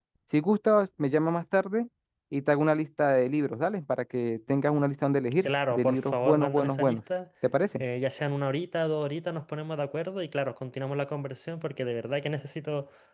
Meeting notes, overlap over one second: present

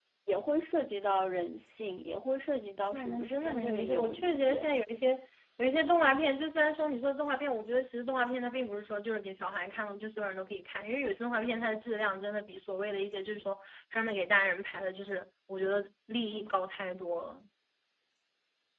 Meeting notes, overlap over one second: present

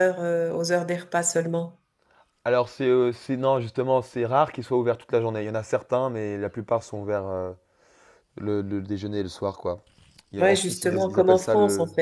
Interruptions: present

